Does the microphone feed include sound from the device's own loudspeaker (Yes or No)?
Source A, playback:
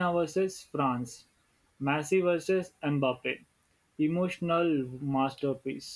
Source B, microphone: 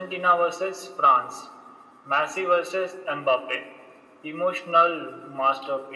Yes